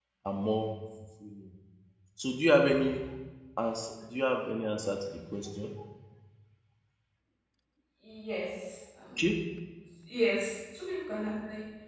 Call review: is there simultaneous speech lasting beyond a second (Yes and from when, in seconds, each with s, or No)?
No